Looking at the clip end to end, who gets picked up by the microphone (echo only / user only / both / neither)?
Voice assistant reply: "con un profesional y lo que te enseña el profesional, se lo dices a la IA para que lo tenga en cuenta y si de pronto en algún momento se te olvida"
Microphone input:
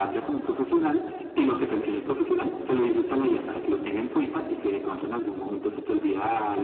echo only